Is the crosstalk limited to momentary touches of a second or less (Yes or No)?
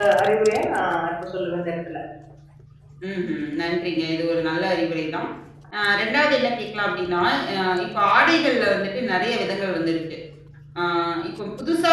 Yes